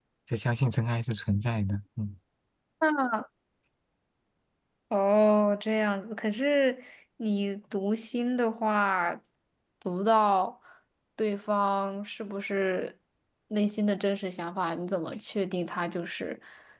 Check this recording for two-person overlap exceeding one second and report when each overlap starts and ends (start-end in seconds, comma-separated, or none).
none